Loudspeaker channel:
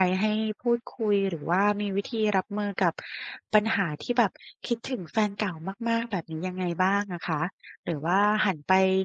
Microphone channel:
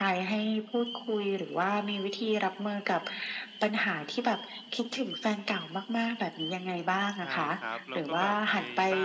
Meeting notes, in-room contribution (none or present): present